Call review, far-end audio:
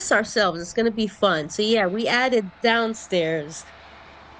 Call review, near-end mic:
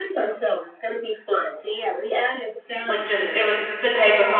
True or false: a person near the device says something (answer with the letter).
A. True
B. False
A